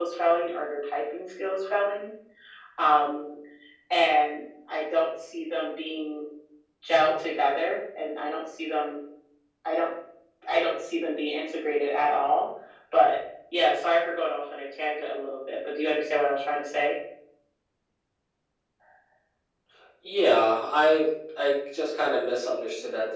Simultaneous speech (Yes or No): No